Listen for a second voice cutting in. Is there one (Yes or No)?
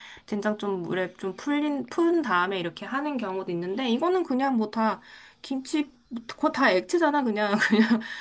No